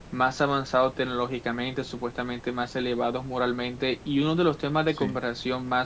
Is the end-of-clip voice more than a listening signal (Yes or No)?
No